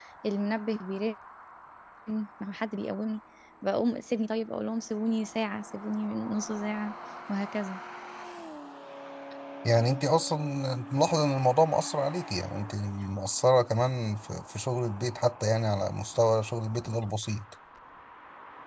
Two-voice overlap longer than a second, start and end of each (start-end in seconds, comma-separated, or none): none